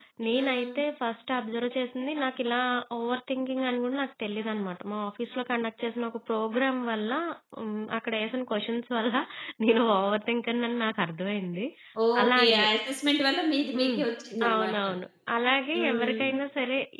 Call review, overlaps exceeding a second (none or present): none